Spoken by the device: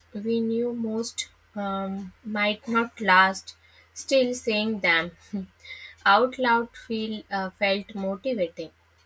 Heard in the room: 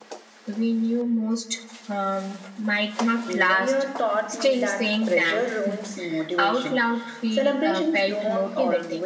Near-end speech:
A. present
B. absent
A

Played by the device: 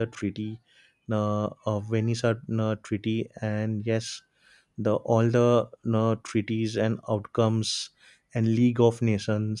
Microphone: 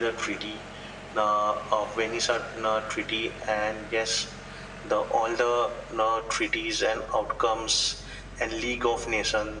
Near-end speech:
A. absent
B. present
A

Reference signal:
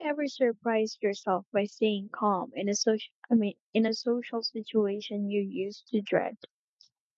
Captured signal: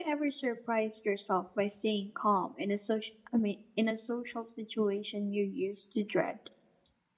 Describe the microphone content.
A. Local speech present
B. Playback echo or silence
B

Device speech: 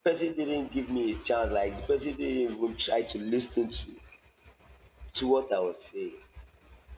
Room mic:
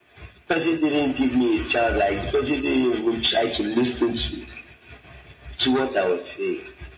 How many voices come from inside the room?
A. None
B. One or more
A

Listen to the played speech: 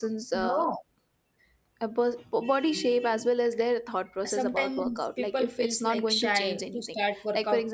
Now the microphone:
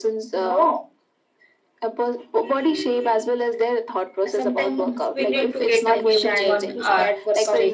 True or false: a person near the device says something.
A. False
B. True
B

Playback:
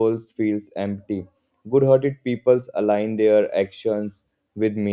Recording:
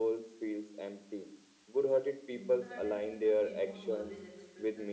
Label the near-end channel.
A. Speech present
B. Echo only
A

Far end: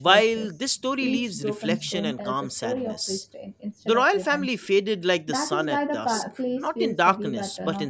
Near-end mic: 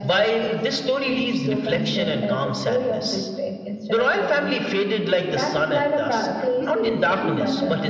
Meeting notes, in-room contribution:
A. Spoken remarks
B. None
A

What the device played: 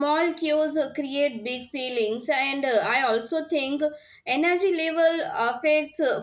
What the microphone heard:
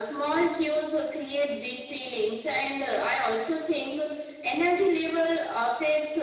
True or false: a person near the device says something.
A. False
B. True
A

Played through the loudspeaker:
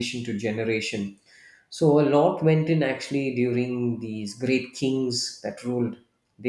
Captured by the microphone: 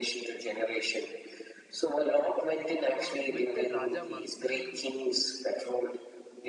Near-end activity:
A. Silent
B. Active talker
B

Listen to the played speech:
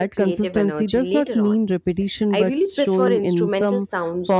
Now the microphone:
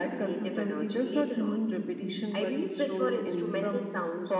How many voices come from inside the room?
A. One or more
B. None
B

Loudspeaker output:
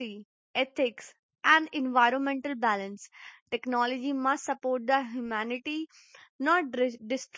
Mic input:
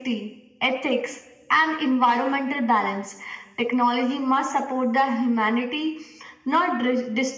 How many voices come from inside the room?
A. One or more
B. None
B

